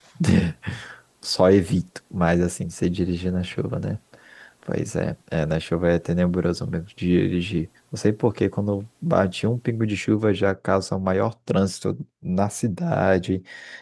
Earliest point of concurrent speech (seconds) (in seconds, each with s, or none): none